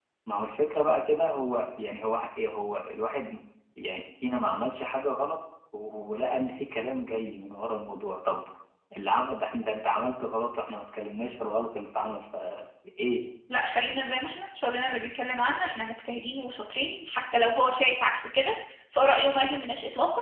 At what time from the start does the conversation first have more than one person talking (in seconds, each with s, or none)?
none